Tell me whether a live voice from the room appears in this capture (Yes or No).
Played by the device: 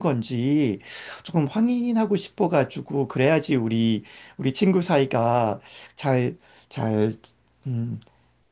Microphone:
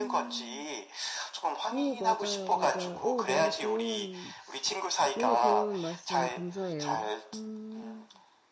Yes